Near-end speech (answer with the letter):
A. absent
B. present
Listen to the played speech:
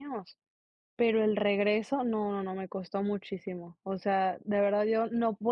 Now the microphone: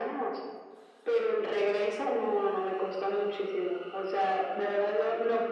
A